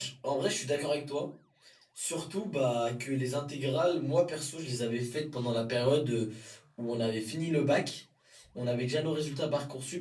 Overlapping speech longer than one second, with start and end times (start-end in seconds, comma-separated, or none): none